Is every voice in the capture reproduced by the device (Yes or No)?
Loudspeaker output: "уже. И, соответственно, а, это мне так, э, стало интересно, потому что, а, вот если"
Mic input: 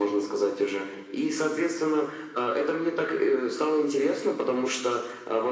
Yes